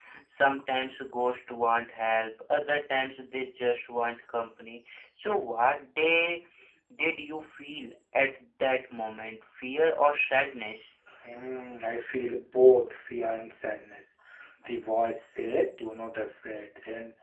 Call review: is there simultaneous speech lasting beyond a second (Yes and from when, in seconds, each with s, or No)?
No